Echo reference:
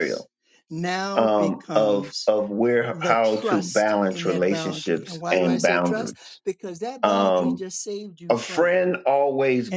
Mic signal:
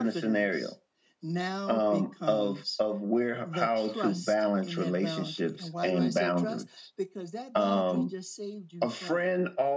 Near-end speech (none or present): none